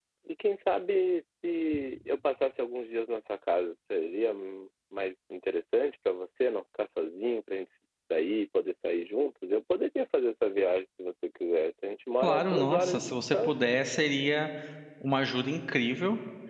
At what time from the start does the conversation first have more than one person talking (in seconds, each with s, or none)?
12.2 s